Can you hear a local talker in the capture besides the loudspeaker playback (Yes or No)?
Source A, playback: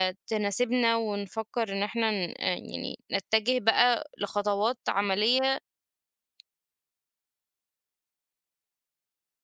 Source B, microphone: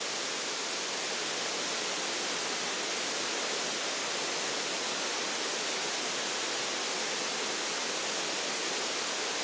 No